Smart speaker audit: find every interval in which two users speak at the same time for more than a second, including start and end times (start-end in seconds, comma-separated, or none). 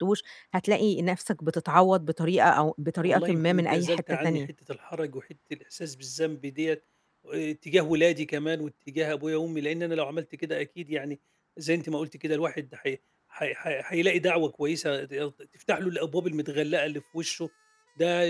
3.0-4.5